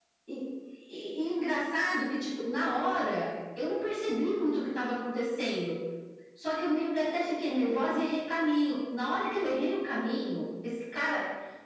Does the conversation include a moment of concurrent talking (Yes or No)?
No